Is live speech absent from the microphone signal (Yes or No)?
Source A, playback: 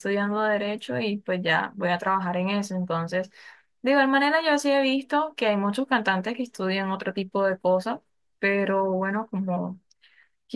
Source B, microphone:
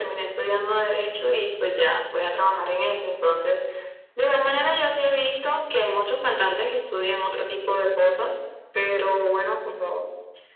Yes